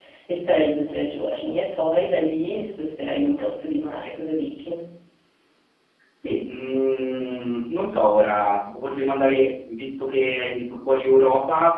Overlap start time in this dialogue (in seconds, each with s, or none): none